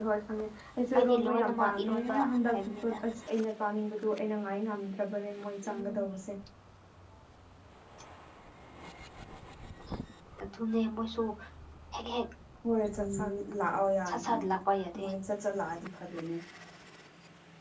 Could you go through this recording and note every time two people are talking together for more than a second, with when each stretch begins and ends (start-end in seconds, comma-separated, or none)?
1.0-3.0